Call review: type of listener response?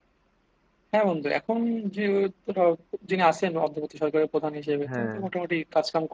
listening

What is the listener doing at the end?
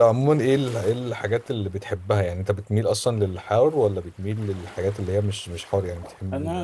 taking over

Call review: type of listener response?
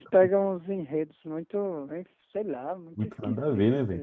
taking over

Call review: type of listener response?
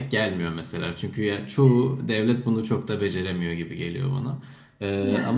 listening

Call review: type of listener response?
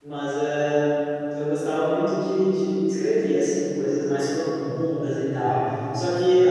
listening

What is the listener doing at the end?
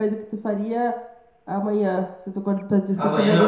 taking over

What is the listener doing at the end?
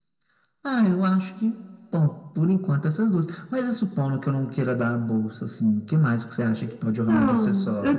taking over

